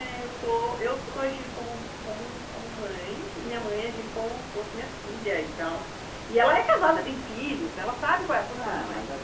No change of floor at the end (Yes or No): No